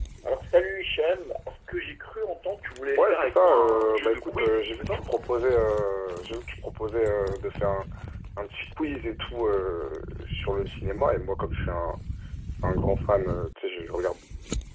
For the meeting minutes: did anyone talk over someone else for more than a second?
Yes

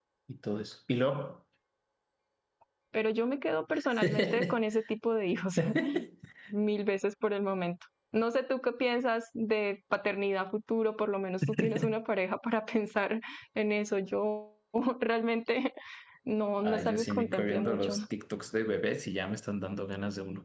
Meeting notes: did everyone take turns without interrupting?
No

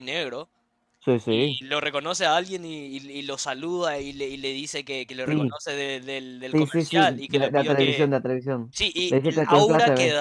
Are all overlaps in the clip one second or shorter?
No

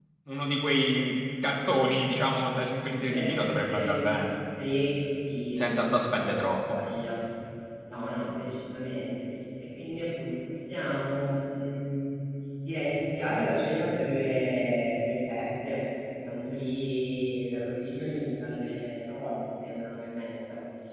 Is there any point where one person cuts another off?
Yes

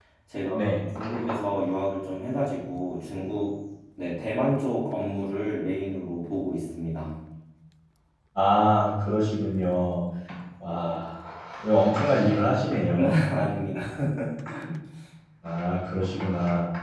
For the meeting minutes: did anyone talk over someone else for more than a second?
No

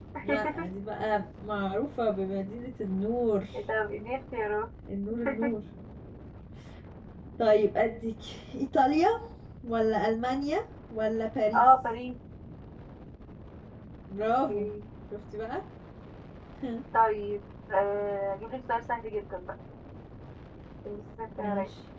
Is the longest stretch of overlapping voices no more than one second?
Yes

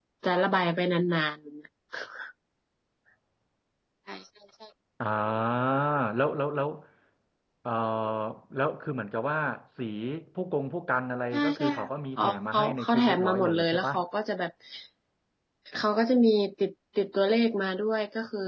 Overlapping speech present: Yes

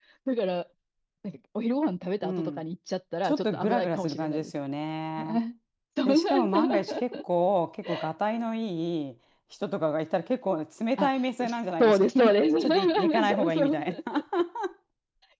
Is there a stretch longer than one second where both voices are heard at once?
Yes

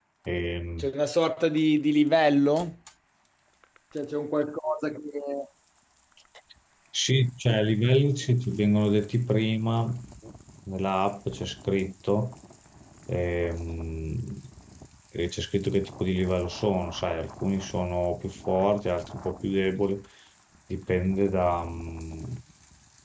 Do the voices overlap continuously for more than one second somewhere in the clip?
No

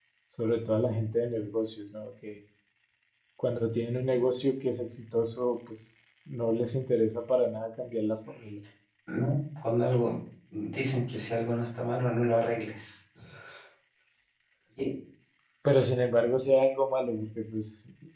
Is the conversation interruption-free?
Yes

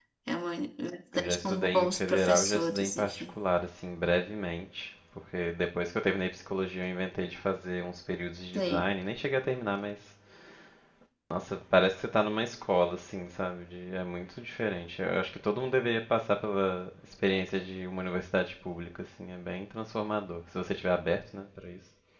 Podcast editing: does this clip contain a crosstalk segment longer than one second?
Yes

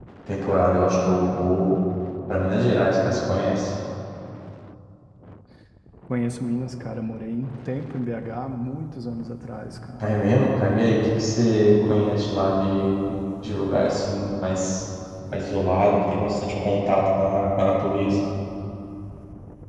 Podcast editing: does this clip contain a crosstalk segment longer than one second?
No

